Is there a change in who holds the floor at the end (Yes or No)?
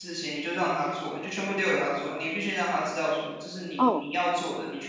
No